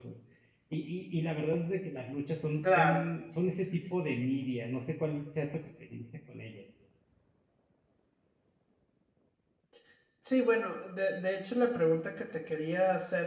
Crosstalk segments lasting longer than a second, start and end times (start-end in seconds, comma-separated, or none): none